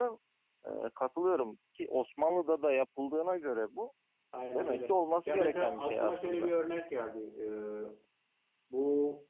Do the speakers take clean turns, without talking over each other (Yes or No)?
No